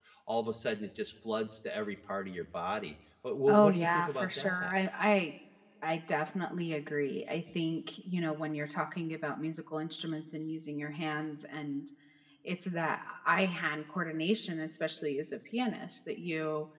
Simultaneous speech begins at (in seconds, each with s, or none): 3.5 s